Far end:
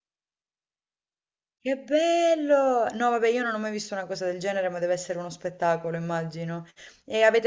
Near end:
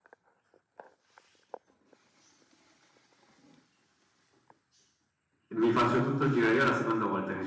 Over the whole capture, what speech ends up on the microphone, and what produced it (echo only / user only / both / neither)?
user only